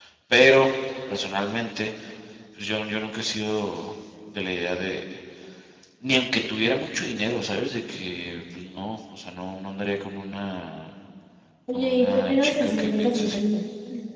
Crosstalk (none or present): present